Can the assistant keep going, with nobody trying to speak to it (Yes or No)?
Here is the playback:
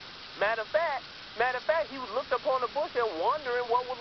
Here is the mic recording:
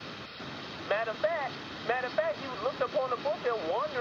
Yes